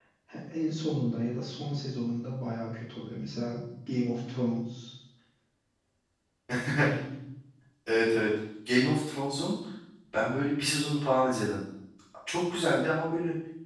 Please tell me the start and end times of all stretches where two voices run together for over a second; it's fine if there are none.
none

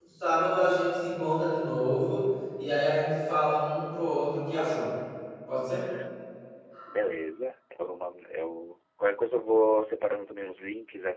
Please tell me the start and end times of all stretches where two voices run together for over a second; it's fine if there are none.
none

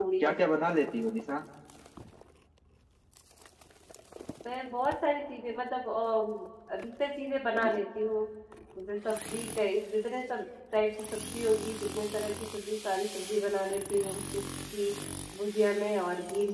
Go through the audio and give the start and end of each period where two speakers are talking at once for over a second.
none

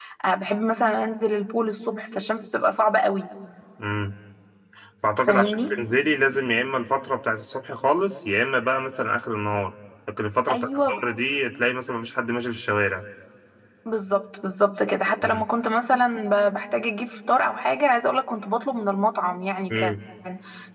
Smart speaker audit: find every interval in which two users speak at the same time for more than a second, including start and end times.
none

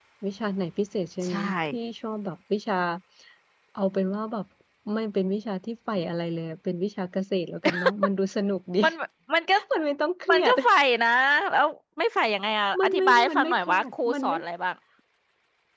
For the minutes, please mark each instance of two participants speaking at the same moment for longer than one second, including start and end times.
12.8-14.4

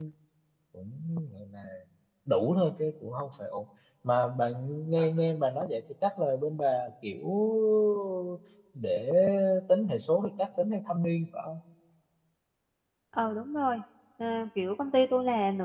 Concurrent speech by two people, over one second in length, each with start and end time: none

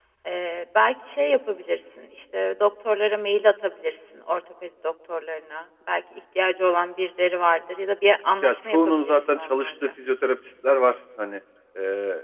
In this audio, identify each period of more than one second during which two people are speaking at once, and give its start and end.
8.4-9.7

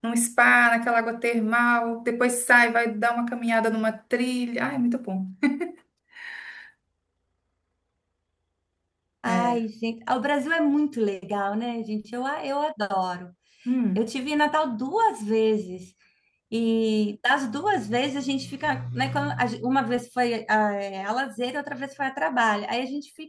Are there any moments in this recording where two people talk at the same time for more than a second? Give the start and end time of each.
none

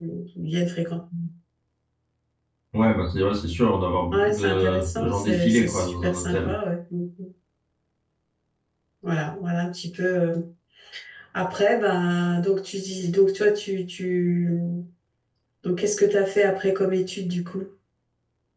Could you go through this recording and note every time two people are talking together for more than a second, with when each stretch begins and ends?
4.1-6.5

